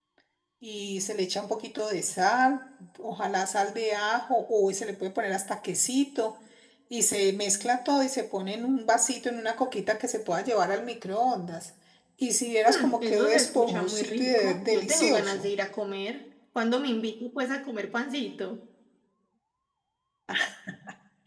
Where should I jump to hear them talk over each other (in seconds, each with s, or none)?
12.6 s